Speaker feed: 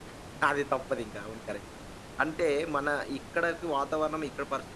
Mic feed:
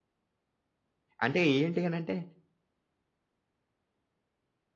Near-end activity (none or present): present